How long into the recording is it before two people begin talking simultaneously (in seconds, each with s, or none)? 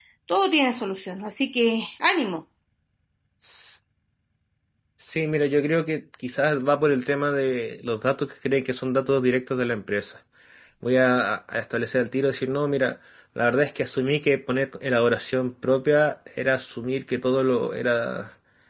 none